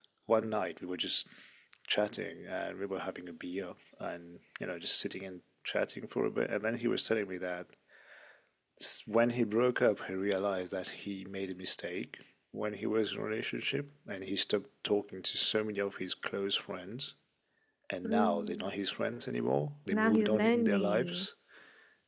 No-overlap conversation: No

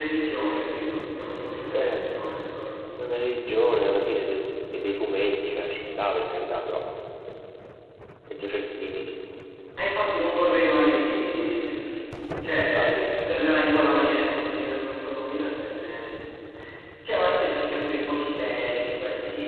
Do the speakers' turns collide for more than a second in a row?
No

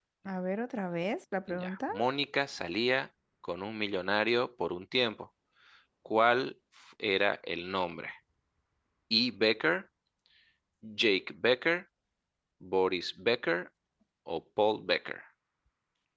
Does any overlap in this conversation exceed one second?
No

